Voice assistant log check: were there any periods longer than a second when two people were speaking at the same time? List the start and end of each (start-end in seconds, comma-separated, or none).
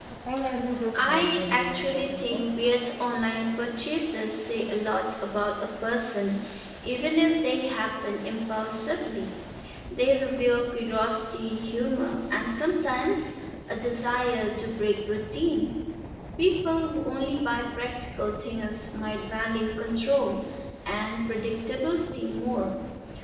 0.9-2.5